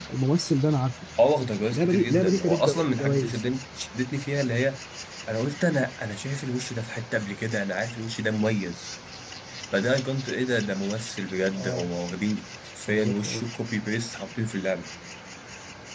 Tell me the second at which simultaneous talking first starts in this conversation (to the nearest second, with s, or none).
2 s